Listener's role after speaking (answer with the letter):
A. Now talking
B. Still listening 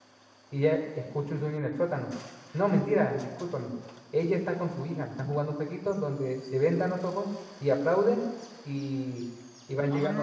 A